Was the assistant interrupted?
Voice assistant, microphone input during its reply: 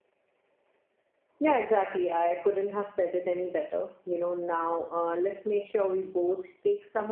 Yes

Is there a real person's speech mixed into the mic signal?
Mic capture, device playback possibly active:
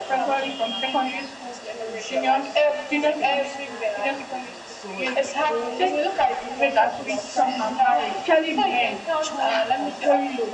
Yes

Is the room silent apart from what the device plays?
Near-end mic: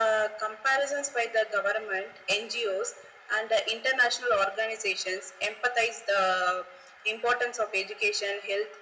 Yes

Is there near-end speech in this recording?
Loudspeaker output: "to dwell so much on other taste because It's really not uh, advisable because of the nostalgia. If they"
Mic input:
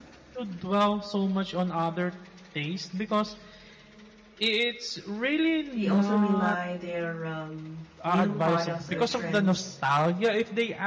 Yes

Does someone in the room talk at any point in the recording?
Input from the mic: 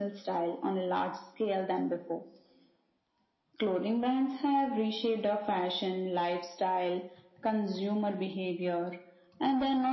No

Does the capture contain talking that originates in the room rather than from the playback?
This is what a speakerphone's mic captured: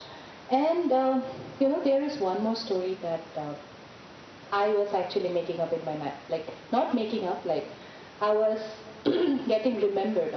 No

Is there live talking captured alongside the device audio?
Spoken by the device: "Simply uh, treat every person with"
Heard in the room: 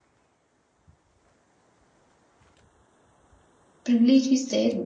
Yes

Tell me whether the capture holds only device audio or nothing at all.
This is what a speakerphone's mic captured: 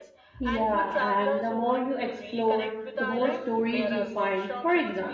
No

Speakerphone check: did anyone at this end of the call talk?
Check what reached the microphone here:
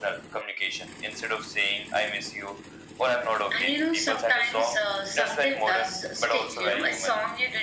Yes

